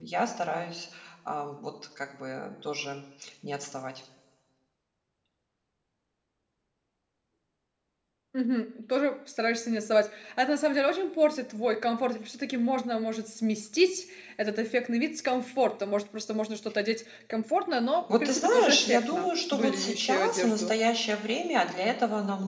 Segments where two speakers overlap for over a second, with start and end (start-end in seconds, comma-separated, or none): 18.1-20.7